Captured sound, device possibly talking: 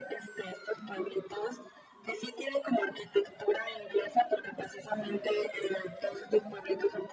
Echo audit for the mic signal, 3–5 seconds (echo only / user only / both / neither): echo only